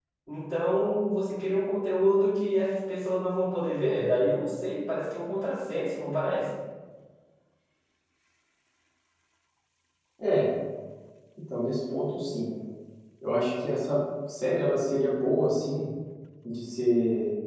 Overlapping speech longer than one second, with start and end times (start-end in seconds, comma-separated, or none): none